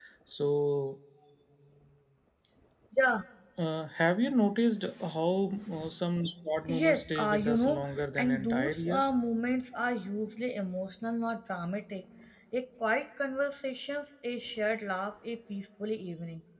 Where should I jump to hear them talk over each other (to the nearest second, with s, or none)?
7 s